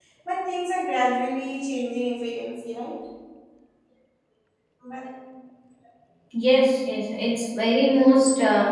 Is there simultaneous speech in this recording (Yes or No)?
No